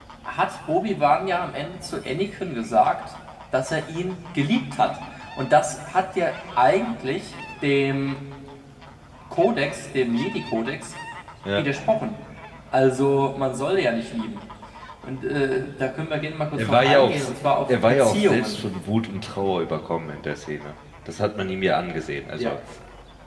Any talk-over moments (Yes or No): Yes